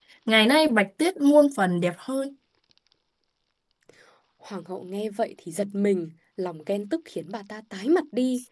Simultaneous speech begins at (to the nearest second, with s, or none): none